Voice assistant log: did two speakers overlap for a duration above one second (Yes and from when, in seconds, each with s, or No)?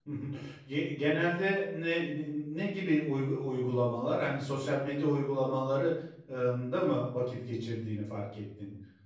No